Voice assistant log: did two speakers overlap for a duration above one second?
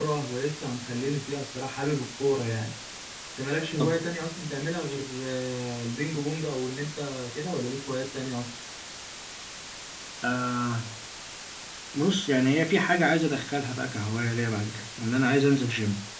No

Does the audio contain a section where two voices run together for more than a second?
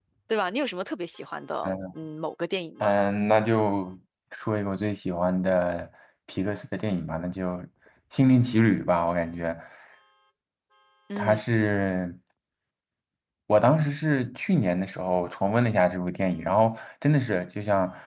No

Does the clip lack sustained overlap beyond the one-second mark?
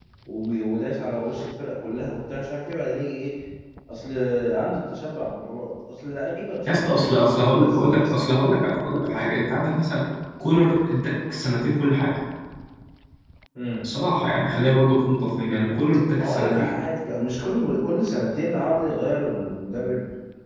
No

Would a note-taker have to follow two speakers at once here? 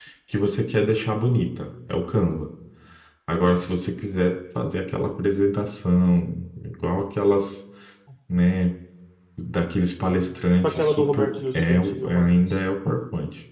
Yes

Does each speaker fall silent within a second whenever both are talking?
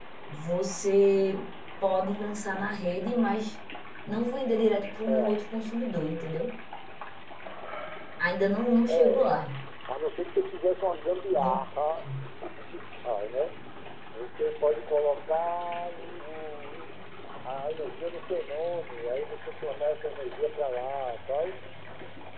Yes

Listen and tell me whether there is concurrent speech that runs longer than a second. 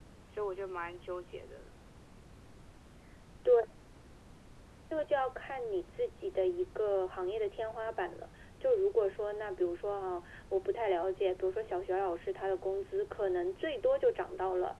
No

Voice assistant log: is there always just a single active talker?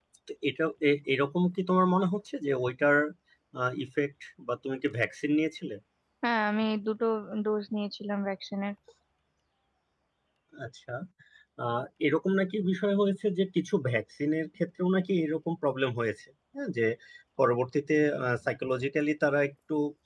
Yes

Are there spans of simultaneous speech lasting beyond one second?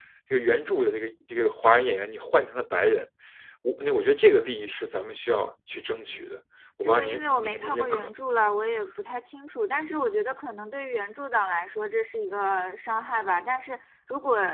Yes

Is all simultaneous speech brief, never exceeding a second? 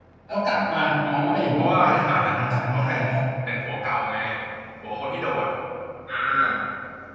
No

